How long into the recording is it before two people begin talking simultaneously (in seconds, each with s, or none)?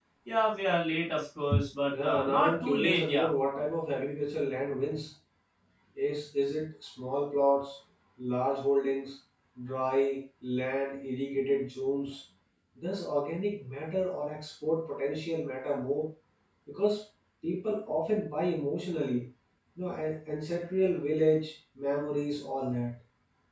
1.9 s